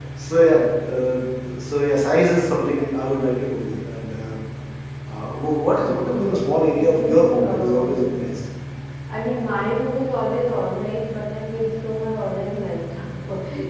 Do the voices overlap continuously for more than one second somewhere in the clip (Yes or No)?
Yes